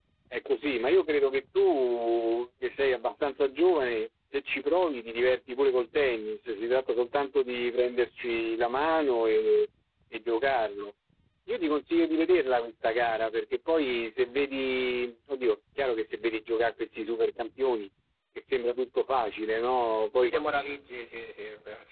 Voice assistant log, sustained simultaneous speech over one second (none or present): none